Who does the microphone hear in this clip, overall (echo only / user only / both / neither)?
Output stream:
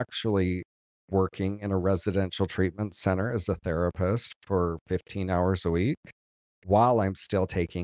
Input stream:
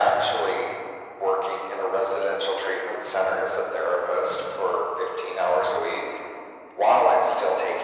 echo only